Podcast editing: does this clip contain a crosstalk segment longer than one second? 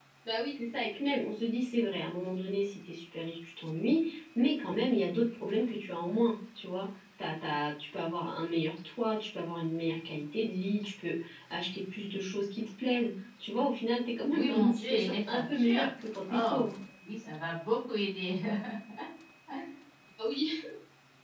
Yes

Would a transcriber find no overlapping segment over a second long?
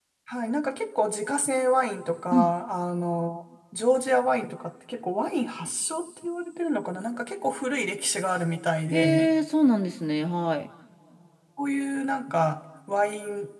Yes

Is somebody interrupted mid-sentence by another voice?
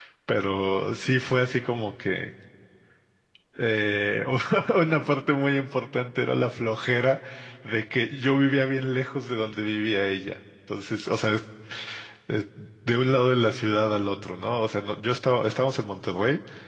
No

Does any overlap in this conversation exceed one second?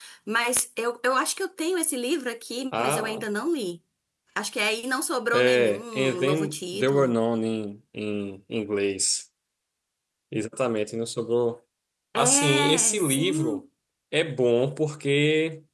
Yes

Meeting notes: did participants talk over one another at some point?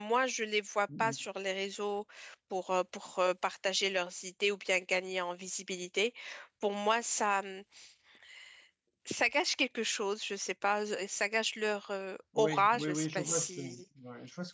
Yes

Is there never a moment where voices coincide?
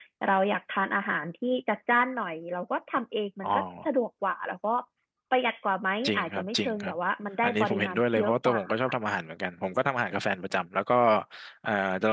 No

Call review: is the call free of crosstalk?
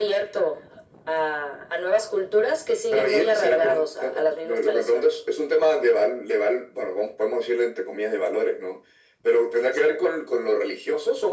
No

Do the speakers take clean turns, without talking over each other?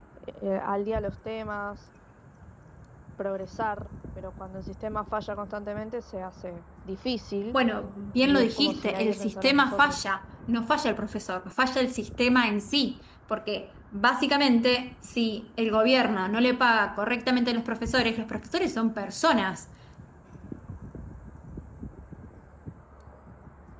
No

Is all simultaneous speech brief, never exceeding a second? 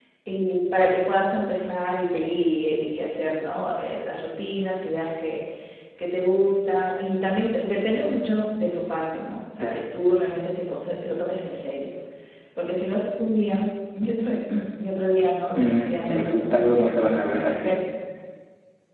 No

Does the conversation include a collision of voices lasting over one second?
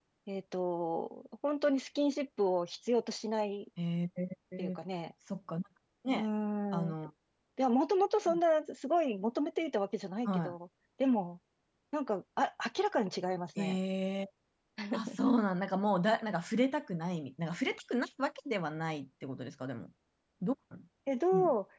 No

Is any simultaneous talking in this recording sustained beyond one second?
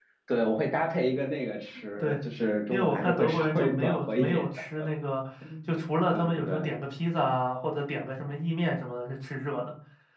Yes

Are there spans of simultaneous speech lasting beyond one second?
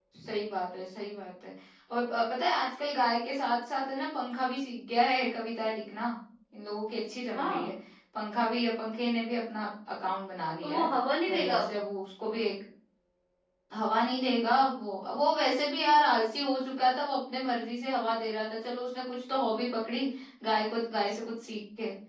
No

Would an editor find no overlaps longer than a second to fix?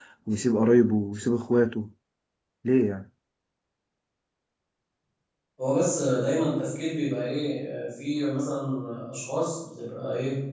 Yes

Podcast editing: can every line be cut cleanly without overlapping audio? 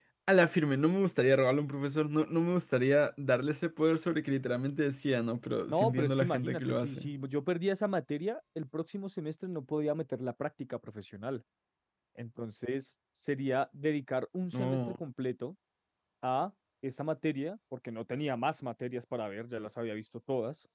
No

